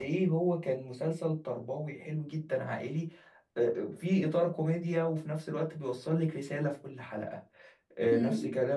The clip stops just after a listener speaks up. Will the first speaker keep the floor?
Yes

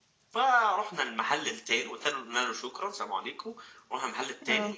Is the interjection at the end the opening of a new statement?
No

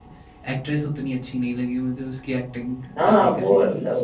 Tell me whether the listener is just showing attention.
No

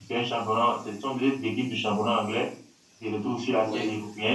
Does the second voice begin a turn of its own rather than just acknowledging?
No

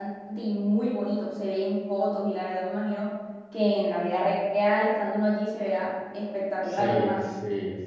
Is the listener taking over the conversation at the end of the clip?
Yes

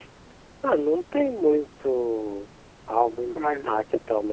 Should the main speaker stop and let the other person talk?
No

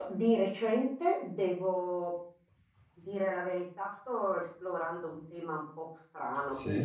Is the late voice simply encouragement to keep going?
Yes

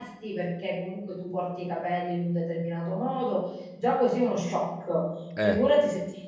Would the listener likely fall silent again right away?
Yes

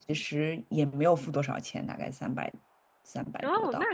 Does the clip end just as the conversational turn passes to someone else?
Yes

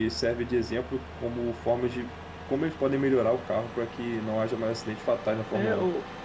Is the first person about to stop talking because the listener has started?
Yes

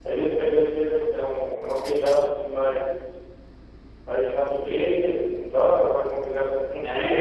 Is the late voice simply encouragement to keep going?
No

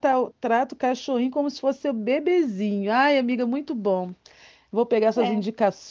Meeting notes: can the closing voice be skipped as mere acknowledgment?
Yes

